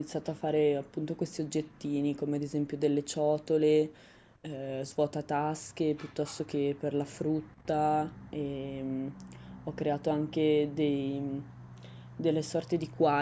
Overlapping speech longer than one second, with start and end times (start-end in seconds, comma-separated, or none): none